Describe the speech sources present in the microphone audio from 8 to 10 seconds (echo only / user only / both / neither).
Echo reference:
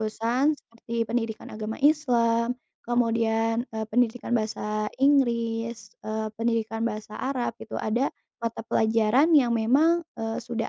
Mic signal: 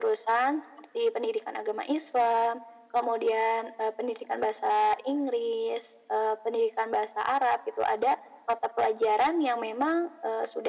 echo only